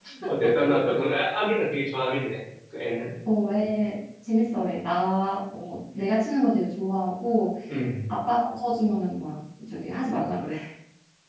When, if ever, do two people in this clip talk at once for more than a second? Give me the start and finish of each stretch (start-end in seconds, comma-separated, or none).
none